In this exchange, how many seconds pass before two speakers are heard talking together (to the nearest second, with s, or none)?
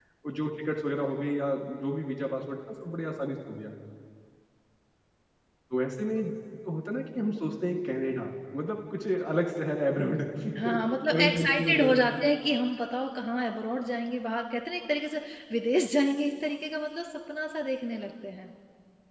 11 s